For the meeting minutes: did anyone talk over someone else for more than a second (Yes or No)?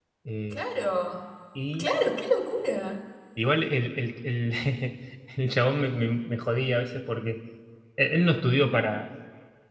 No